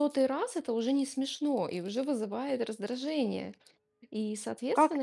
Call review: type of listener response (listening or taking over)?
taking over